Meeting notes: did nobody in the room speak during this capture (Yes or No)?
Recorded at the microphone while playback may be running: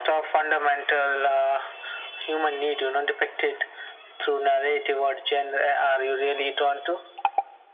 Yes